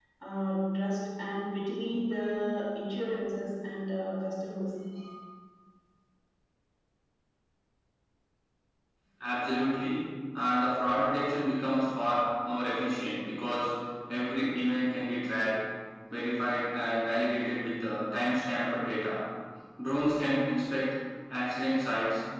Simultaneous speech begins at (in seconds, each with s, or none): none